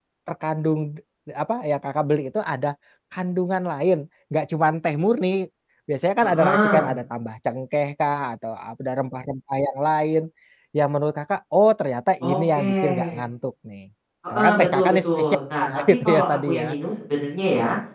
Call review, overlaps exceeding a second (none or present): present